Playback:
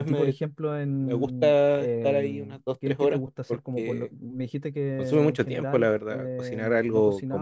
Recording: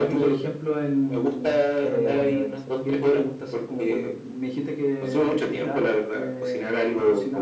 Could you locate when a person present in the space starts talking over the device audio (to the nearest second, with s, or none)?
2 s